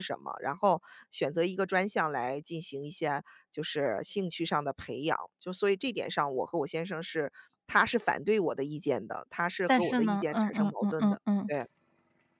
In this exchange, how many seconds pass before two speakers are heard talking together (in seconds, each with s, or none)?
9.7 s